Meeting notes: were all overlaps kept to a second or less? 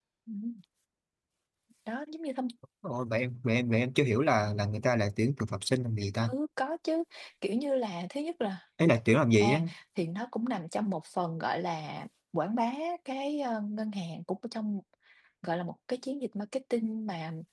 Yes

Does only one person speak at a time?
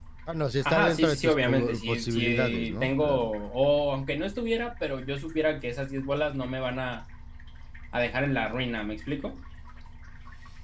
No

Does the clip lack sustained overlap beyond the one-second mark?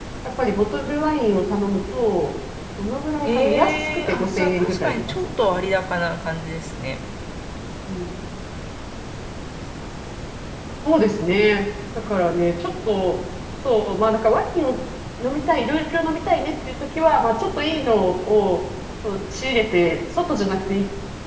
No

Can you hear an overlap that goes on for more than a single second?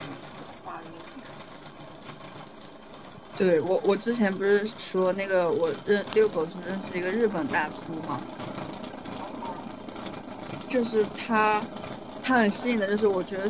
No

